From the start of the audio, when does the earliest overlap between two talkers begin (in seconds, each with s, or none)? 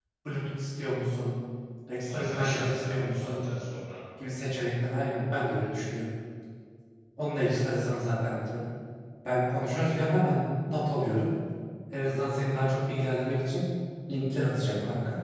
2.1 s